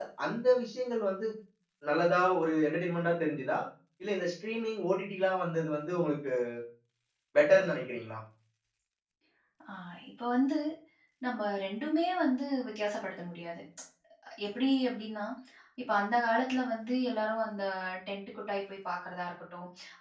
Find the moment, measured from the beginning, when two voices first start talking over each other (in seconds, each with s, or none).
none